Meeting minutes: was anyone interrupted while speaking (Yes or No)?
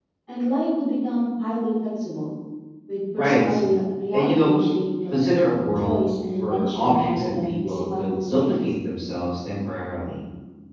Yes